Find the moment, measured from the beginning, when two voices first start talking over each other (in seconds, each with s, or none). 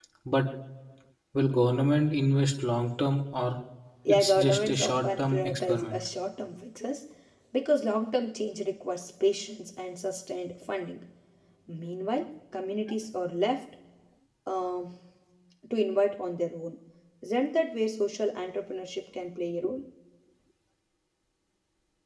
4.1 s